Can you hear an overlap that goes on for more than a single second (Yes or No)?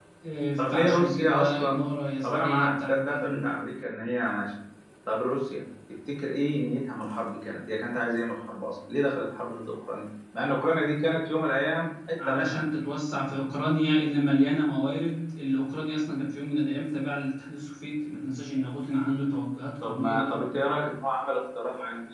Yes